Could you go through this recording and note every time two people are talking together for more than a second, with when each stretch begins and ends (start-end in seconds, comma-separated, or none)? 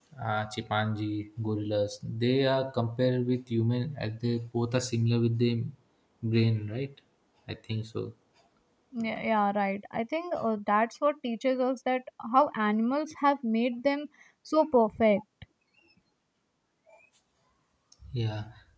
none